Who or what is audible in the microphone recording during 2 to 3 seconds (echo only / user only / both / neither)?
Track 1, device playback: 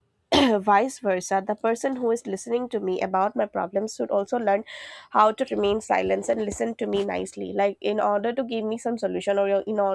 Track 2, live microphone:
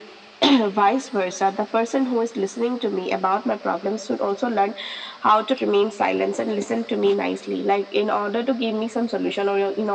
echo only